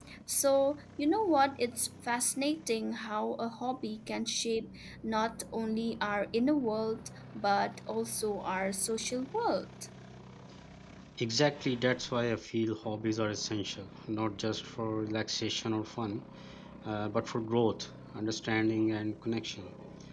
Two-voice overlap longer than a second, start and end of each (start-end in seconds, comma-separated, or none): none